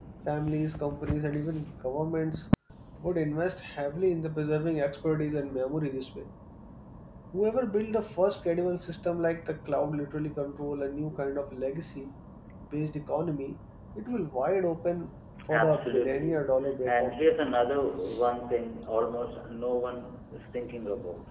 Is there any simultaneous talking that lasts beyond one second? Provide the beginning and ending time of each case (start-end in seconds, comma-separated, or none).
15.5-17.2